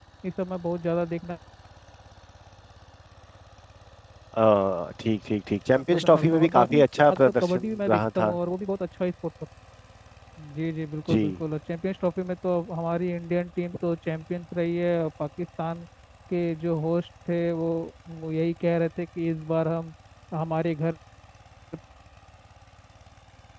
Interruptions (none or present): present